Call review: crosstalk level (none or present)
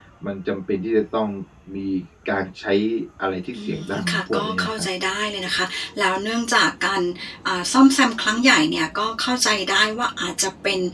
present